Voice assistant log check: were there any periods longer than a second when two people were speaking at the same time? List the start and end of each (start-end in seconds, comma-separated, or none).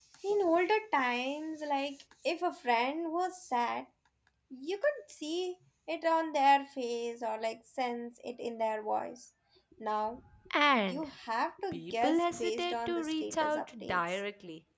11.7-14.2